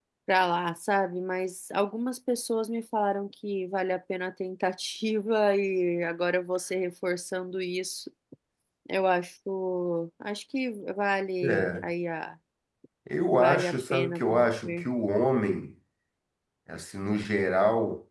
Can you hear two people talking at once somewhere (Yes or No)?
Yes